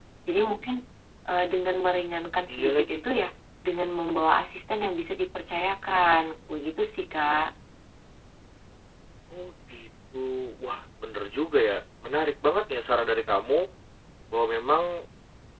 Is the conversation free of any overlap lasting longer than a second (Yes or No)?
Yes